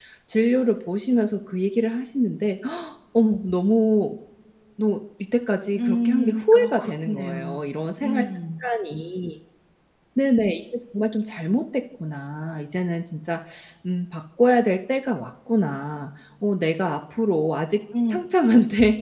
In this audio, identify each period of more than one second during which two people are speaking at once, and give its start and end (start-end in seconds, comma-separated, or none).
5.8-7.6